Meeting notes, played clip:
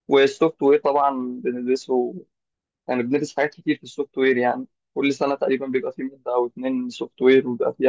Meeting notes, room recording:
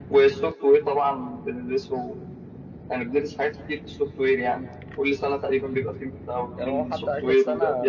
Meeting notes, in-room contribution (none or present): present